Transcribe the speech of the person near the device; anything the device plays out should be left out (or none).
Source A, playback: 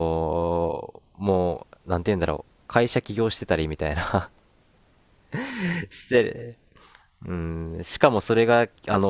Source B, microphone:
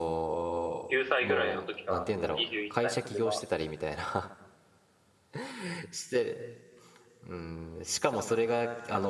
9歳ぐらいの時から、今21歳なんで、まあ、